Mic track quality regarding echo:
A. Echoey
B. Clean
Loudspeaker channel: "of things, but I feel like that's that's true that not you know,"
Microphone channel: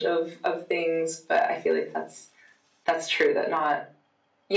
A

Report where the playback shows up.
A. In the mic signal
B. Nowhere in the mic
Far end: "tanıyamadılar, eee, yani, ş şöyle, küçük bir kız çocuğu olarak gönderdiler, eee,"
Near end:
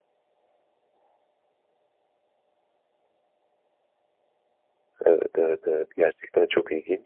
B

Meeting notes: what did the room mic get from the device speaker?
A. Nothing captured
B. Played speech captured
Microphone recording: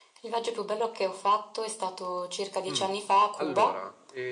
B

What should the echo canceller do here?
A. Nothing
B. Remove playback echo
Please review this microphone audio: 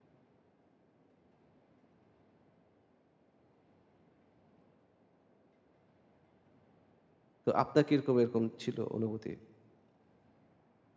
A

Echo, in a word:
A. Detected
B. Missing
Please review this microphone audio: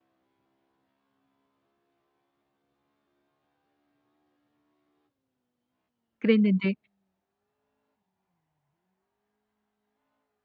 B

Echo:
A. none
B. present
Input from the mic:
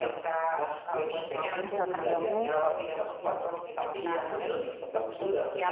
B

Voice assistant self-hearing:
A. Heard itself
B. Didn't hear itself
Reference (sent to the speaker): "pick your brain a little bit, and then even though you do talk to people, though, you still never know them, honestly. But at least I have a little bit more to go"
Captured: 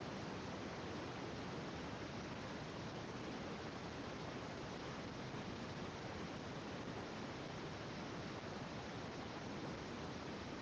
B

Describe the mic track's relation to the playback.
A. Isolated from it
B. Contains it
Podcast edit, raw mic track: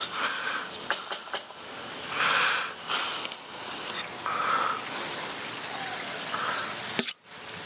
A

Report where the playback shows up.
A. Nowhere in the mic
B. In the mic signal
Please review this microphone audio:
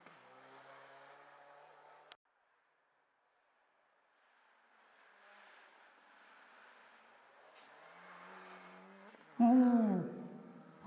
A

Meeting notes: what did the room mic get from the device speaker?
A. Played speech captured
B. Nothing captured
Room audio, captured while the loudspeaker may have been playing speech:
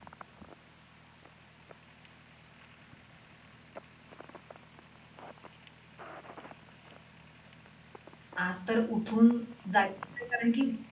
B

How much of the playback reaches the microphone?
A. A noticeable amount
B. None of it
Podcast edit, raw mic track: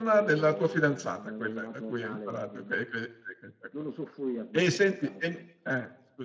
A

